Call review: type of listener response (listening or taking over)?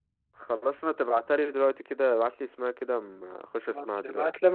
taking over